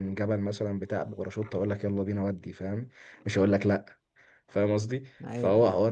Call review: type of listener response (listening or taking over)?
listening